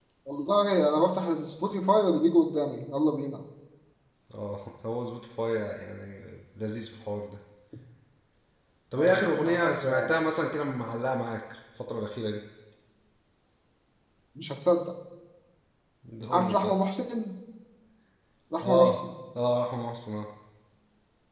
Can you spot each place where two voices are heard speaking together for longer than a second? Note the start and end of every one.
9.0-10.3

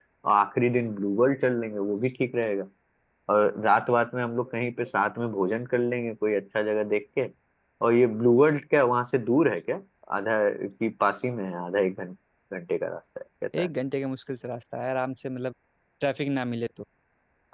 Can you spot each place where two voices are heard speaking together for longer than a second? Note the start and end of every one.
none

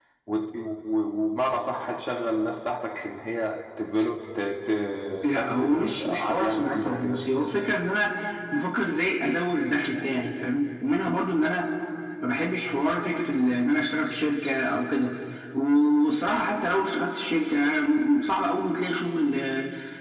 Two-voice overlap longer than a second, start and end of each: 5.3-7.2

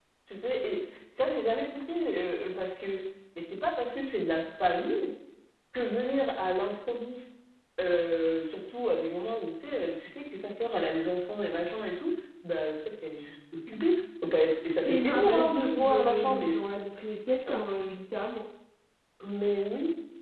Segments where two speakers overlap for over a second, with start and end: 14.8-16.6

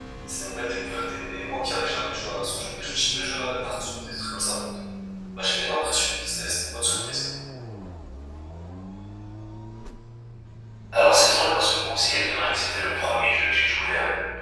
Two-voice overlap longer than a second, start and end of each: none

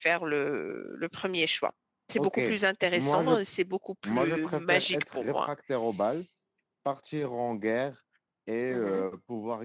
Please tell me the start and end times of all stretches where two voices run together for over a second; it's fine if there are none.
4.0-5.5

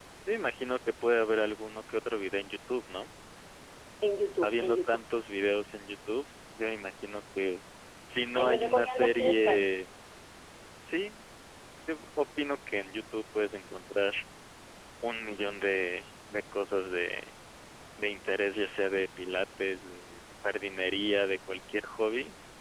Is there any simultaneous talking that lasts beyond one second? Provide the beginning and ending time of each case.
8.3-9.6

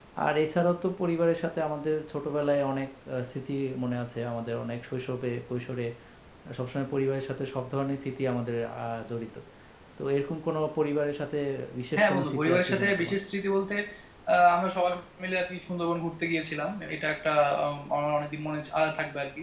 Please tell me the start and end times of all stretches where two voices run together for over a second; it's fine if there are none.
12.0-13.2

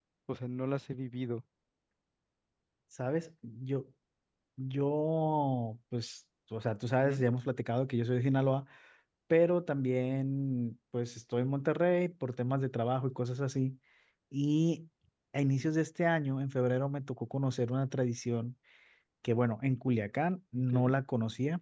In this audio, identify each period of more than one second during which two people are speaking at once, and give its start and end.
none

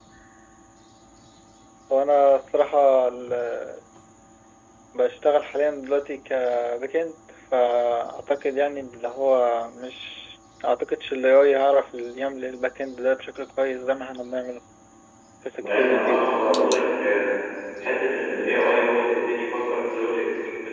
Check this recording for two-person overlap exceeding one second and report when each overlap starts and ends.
15.6-16.8

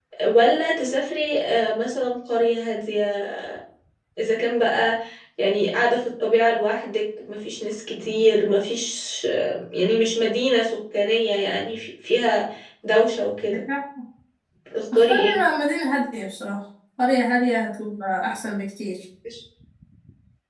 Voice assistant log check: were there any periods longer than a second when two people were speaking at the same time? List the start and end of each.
none

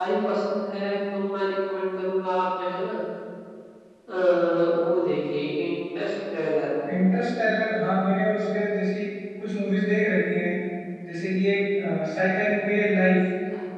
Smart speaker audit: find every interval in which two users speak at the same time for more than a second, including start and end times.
none

